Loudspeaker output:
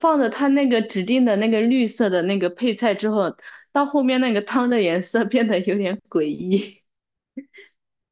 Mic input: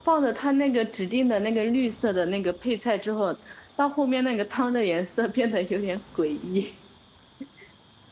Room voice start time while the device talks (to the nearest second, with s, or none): none